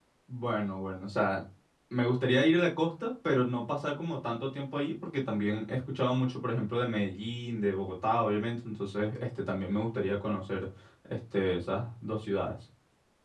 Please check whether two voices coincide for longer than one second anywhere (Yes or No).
No